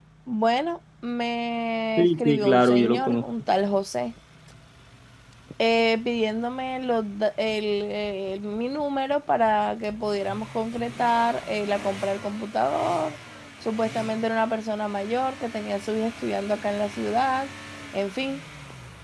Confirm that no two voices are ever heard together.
No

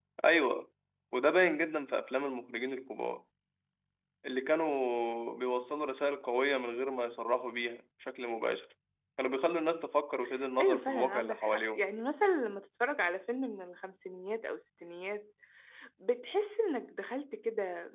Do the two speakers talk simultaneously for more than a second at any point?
Yes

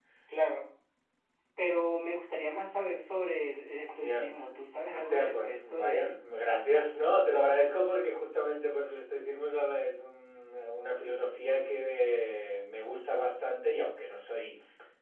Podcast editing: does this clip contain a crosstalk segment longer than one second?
Yes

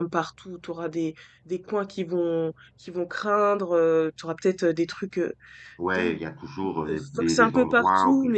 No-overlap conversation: No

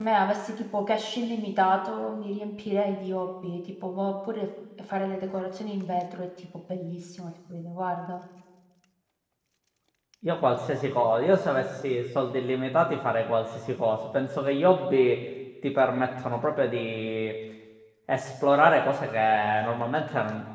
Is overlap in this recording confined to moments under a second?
Yes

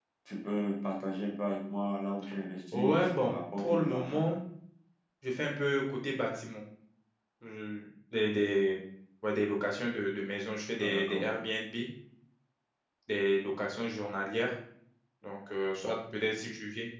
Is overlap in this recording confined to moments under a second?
No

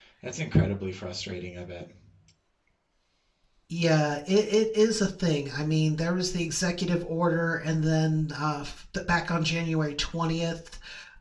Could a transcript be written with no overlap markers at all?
Yes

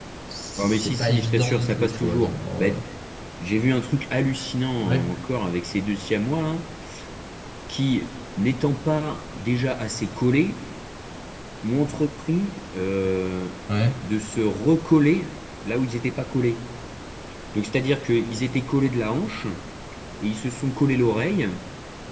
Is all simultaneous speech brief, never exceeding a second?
No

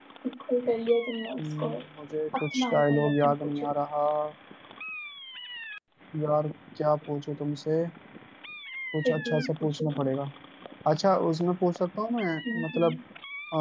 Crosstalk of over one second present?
Yes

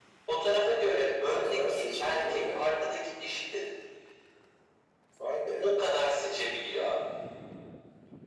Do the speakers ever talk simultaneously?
Yes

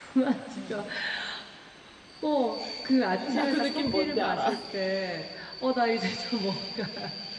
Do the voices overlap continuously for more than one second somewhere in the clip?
Yes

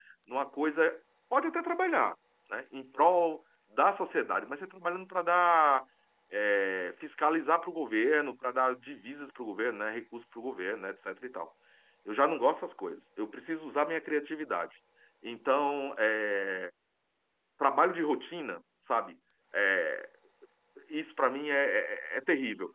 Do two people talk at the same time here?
No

